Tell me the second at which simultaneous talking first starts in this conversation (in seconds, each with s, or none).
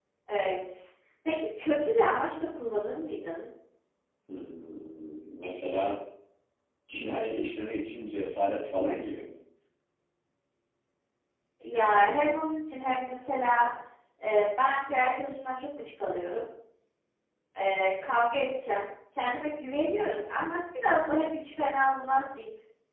none